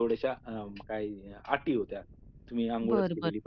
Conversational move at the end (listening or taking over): taking over